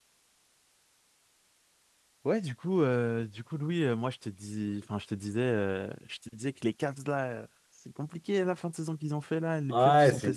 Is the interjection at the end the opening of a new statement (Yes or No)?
Yes